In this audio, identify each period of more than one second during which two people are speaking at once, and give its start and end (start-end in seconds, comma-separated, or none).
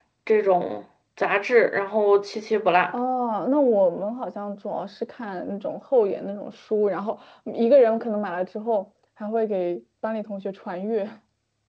none